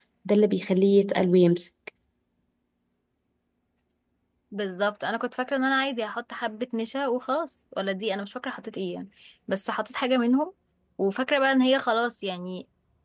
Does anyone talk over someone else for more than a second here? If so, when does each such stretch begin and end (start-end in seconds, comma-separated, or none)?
none